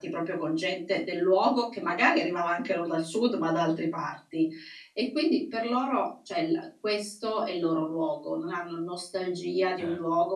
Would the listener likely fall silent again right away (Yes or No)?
Yes